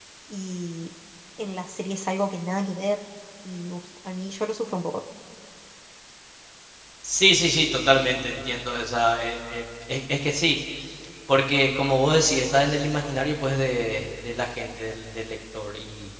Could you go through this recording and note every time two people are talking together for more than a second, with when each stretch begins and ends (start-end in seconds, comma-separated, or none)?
none